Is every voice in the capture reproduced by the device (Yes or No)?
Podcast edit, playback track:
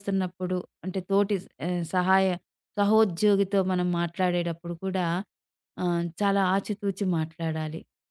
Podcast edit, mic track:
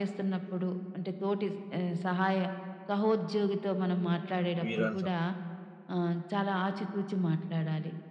No